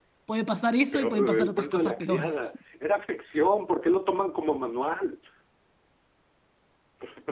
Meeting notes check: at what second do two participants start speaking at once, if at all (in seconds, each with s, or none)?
0.9 s